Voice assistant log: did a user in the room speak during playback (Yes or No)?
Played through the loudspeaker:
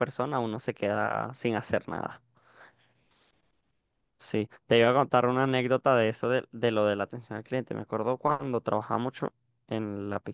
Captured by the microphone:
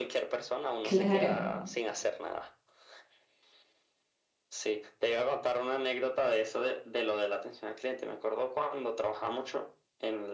Yes